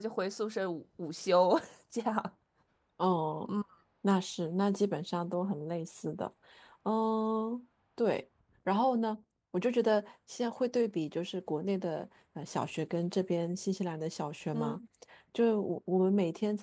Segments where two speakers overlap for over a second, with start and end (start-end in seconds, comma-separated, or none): none